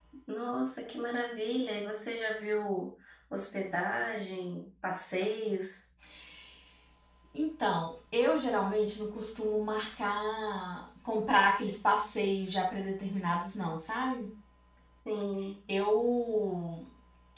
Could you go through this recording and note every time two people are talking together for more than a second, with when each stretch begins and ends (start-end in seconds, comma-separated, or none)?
none